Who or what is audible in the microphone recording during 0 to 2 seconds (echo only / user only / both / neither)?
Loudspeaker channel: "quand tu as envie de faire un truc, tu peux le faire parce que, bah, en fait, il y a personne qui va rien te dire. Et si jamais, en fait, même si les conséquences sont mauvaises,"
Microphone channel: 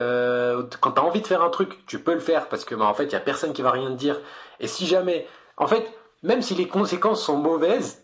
echo only